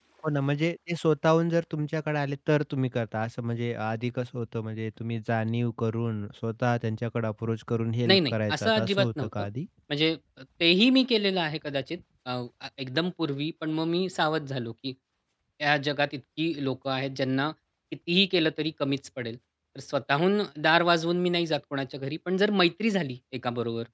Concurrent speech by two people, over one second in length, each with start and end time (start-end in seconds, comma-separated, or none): 8.1-9.3